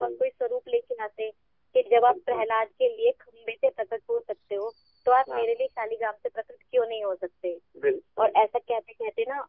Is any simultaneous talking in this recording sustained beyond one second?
No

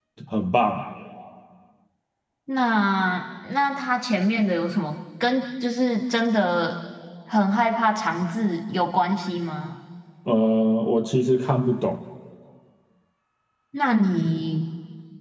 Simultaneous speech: No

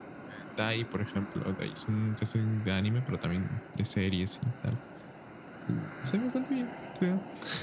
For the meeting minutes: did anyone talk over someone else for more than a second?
No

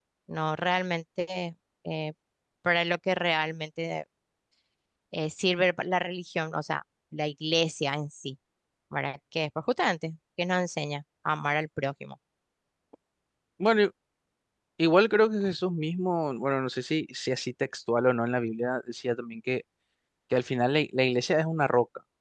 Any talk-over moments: No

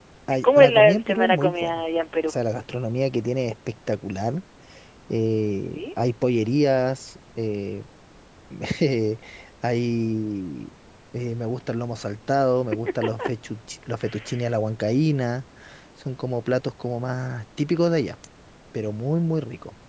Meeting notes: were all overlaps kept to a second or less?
No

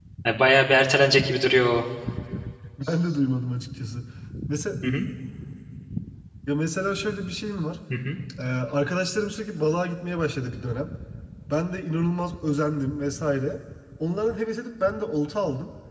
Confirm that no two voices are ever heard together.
Yes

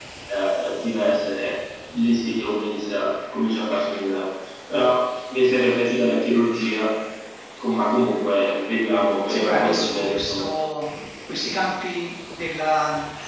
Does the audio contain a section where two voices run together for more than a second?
Yes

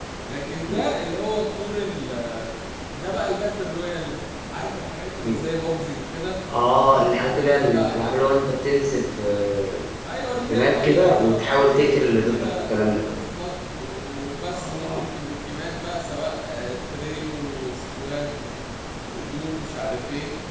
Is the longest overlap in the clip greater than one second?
Yes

